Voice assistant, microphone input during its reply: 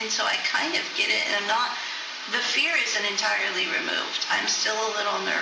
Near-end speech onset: none

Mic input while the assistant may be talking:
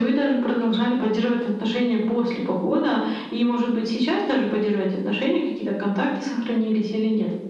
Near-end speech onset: none

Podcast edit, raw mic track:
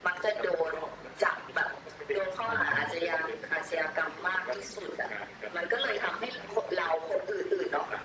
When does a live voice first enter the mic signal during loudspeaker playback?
2 s

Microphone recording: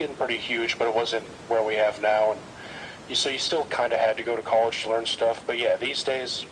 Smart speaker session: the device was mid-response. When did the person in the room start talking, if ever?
none

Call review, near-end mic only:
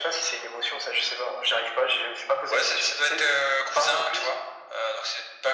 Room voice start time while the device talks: none

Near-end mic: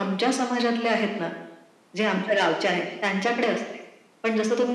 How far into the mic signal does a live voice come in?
none

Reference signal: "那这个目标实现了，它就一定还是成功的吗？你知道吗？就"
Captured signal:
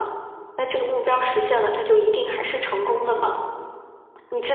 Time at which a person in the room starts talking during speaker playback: none

